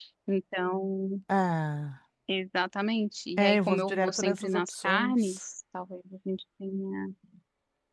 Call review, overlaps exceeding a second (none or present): present